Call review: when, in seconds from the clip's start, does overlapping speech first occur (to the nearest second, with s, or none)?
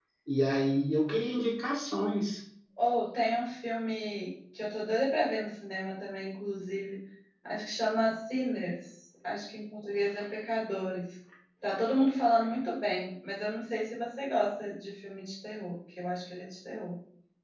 none